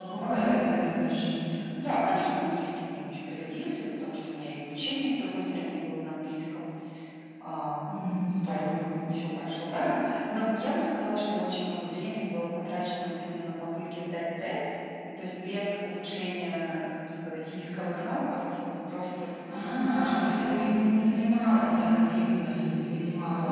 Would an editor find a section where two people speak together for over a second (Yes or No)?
Yes